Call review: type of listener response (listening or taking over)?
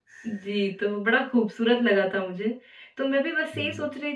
listening